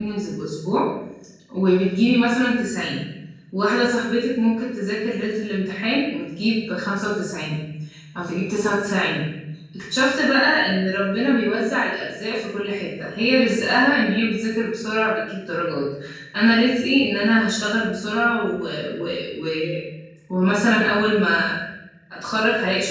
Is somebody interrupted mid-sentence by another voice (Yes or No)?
No